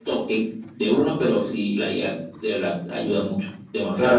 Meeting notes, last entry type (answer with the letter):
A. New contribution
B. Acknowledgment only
A